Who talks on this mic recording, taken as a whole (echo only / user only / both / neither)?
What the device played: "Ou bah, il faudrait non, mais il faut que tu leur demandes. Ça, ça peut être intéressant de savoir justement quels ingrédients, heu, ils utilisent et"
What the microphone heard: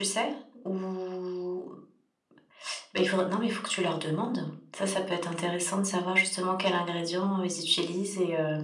echo only